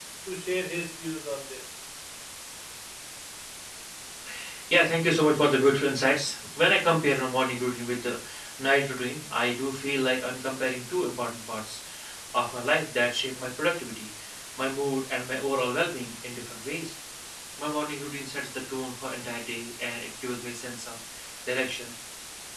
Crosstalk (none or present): none